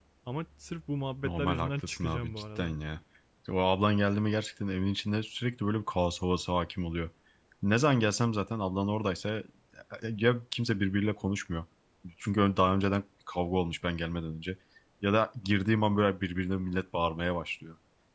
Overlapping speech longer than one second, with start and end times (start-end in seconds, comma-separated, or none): 1.2-2.8